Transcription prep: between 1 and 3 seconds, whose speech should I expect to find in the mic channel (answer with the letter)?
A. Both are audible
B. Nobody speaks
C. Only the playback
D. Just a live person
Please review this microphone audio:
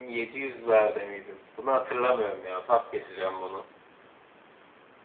C